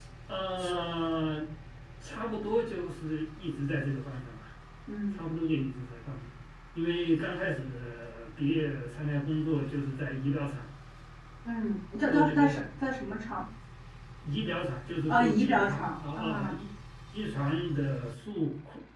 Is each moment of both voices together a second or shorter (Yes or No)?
No